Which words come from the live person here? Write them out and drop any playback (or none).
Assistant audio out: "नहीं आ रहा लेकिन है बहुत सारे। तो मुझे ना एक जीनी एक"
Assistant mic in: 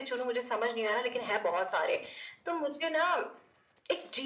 none